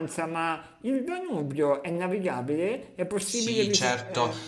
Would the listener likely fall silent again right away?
No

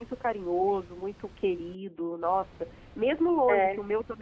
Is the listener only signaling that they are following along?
Yes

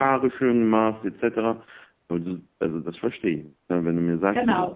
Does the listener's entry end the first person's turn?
Yes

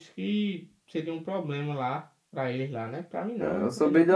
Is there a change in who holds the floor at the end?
Yes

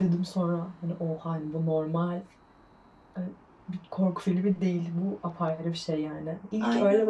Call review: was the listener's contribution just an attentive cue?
Yes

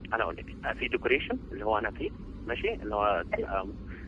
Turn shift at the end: No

